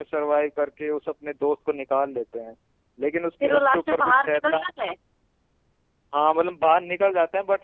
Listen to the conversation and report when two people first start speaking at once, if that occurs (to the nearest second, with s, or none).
3 s